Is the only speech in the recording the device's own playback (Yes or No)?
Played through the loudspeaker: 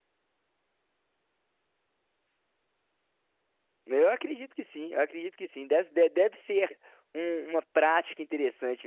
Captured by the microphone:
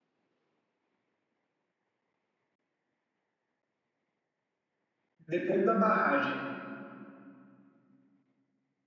No